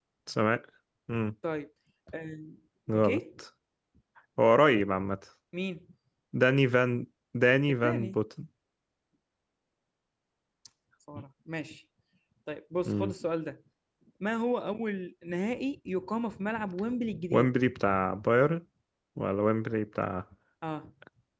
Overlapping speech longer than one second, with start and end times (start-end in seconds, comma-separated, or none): none